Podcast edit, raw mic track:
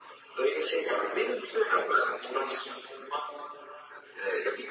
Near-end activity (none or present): none